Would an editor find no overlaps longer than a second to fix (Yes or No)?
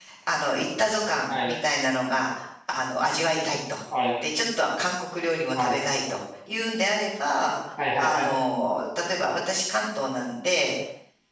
Yes